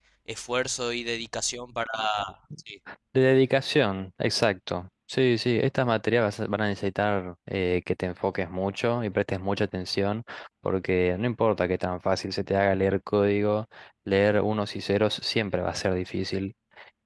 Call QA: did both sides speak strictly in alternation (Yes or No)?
Yes